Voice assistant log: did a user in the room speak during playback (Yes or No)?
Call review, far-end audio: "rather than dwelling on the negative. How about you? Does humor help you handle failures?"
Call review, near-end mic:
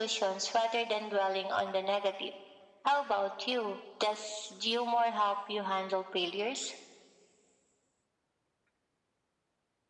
No